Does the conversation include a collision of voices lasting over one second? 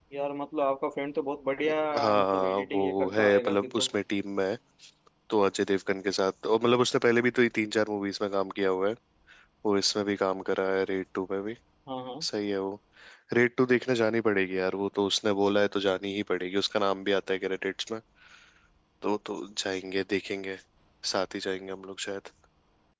Yes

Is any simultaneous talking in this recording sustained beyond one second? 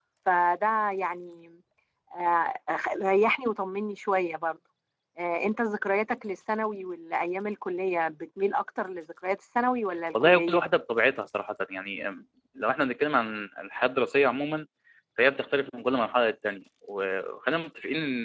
No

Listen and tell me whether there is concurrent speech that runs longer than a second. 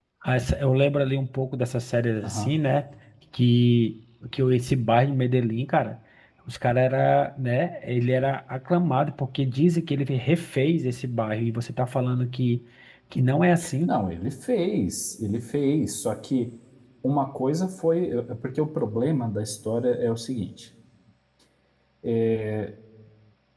No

